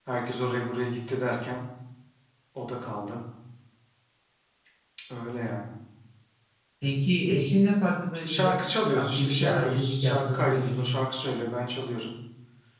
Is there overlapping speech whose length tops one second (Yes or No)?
Yes